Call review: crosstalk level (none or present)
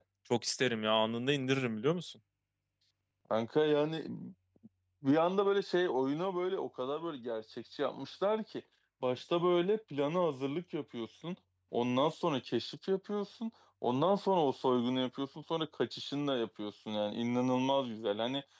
none